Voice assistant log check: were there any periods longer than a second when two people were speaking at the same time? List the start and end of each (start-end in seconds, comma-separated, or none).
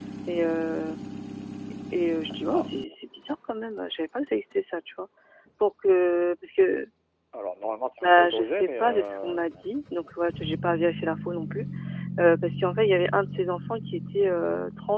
8.0-9.4